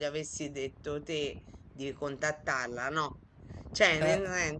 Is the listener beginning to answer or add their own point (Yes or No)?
No